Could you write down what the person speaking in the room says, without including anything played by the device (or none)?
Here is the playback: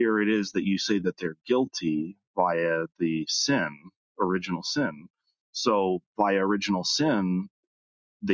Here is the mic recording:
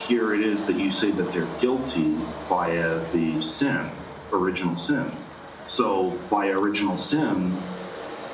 none